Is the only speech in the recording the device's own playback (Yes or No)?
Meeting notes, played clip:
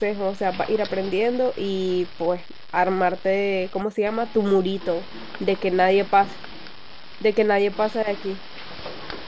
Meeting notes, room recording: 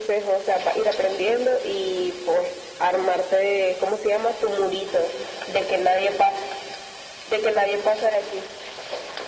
Yes